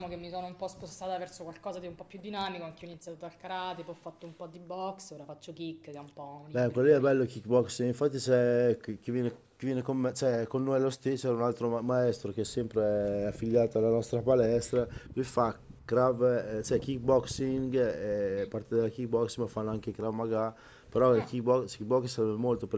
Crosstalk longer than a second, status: none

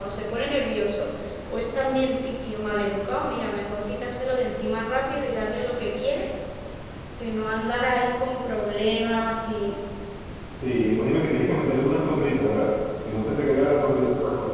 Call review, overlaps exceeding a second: none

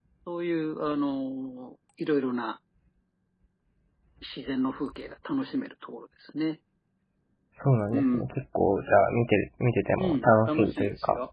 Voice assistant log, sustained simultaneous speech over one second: present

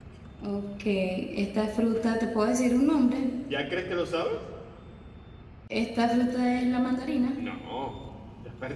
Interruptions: none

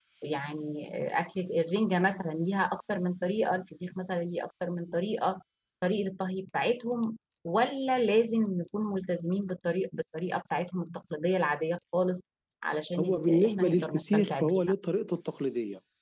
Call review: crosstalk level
present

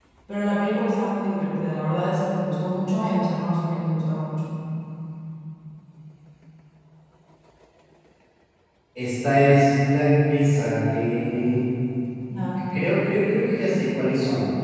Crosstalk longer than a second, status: none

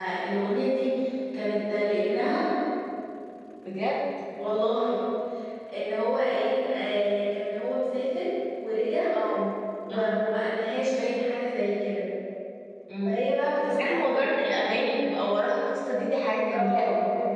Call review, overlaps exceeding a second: none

